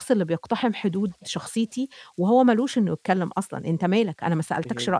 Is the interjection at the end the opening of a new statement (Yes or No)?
Yes